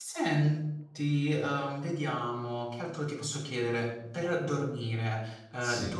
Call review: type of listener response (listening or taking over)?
listening